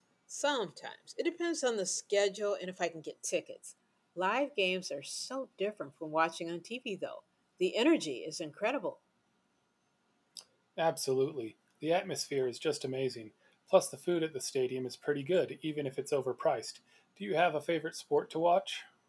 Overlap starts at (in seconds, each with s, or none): none